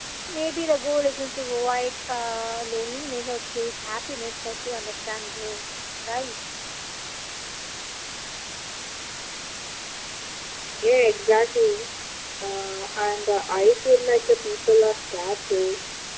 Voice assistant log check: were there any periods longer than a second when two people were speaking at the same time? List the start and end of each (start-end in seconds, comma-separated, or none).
none